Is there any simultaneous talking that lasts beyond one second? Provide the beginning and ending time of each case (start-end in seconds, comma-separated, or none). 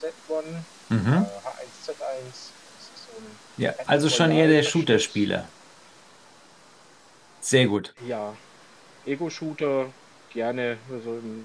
3.9-5.3